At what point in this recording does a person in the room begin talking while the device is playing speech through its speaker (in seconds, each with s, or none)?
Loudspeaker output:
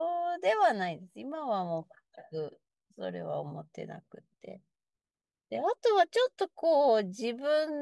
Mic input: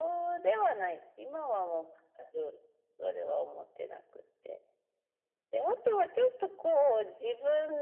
none